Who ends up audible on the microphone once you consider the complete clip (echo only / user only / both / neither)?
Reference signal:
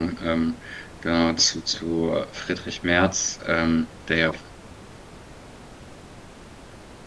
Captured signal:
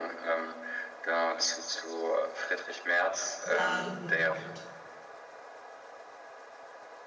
both